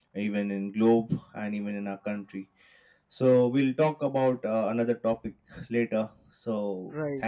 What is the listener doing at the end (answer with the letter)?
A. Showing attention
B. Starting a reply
B